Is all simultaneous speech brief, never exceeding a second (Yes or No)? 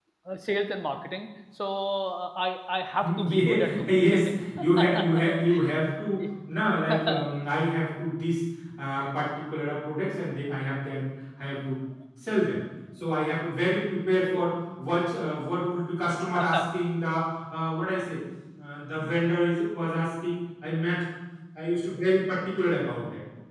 No